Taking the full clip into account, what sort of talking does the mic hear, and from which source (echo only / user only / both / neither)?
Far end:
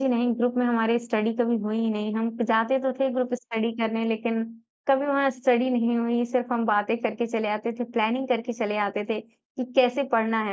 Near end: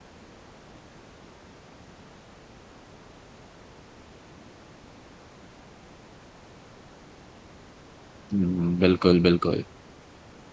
user only